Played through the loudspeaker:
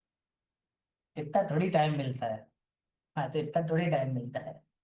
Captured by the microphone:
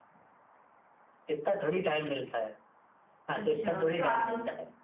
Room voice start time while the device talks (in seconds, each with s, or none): 3.3 s